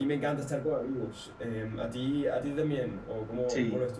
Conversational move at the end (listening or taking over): taking over